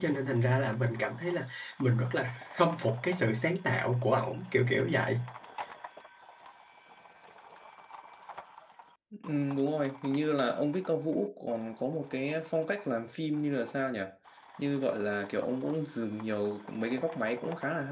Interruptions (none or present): none